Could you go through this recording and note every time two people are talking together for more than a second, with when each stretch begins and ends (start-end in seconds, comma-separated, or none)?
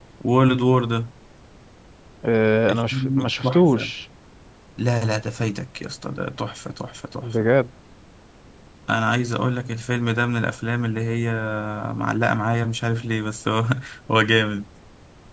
2.7-3.9